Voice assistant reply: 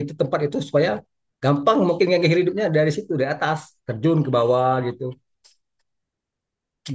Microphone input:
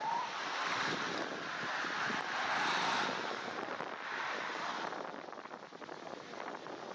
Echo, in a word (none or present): none